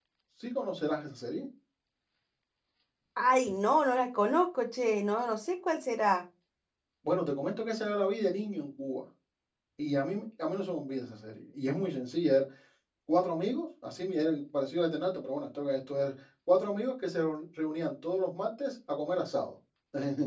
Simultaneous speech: No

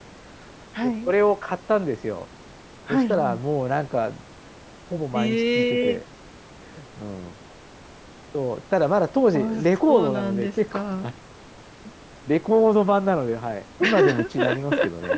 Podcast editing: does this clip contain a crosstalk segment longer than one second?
Yes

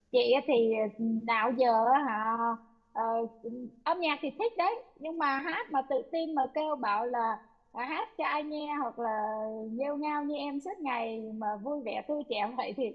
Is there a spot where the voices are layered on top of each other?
No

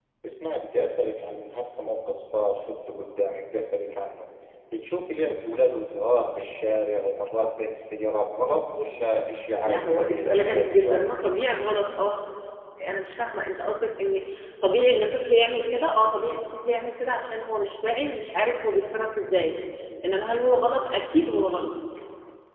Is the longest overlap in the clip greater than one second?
Yes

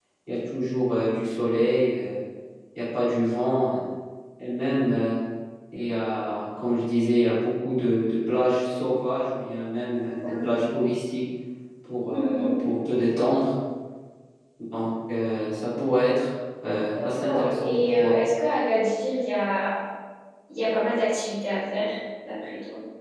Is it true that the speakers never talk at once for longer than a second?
No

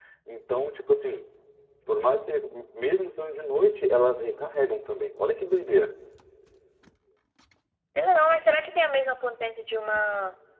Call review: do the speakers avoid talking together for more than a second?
Yes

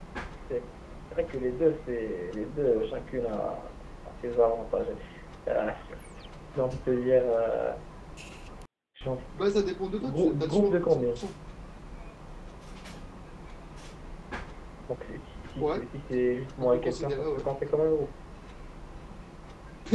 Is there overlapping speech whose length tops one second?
Yes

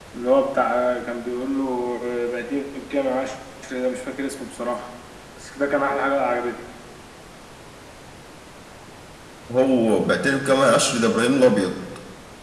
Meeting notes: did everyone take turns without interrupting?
Yes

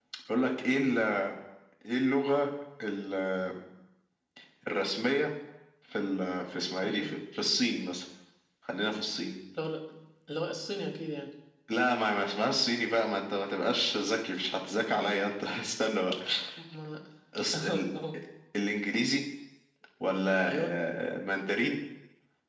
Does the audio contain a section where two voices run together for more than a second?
No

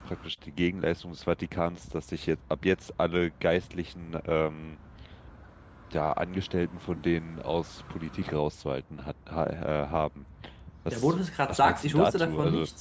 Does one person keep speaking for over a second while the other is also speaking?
Yes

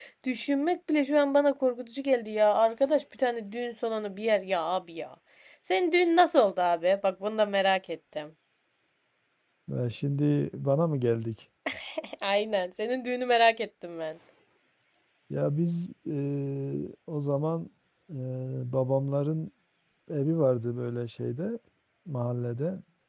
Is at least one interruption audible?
No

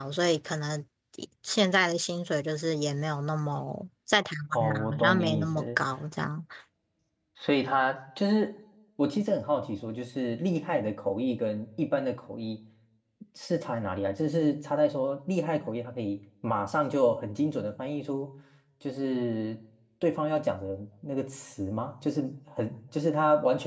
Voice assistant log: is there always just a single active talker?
No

